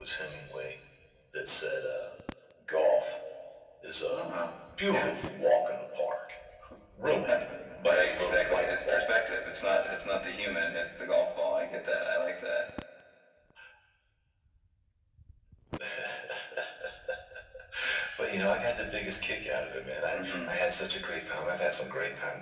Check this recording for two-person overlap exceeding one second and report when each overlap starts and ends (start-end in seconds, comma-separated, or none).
7.8-9.1